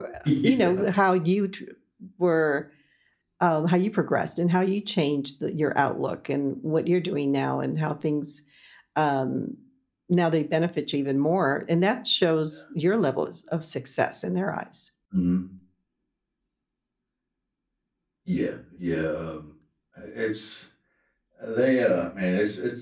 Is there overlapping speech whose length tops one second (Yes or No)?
No